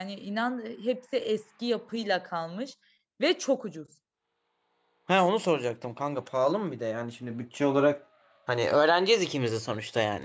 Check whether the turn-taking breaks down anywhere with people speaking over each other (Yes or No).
No